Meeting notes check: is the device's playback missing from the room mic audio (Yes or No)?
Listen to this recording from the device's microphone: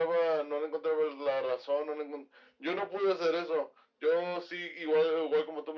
No